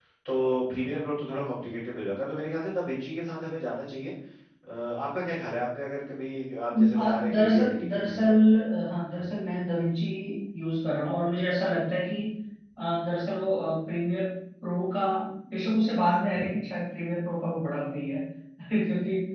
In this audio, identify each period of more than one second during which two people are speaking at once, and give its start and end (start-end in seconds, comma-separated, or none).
7.0-8.3